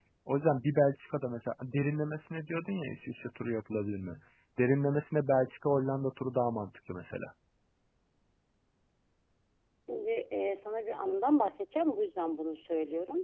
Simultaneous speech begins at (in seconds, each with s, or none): none